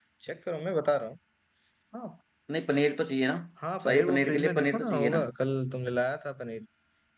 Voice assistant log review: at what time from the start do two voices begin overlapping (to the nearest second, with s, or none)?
4 s